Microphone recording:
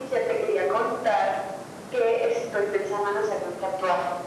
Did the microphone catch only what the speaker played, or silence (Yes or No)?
Yes